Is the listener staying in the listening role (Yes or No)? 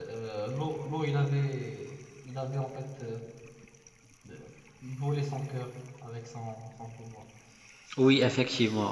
No